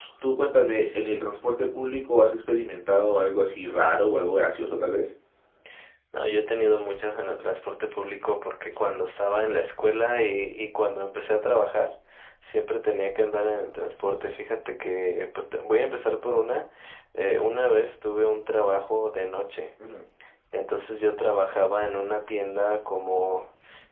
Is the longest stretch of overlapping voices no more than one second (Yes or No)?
Yes